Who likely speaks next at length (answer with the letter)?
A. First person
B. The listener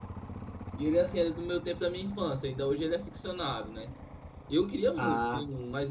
A